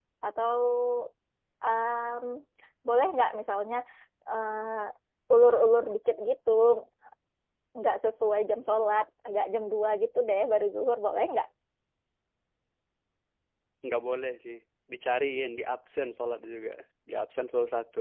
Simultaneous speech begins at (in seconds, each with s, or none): none